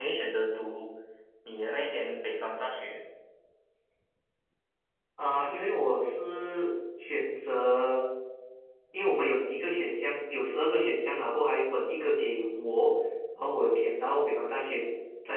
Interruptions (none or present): none